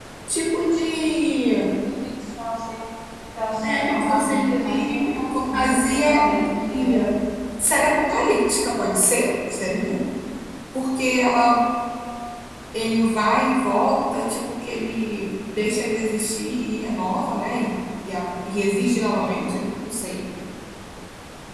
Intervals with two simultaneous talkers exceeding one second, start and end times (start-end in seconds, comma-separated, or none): 3.6-5.6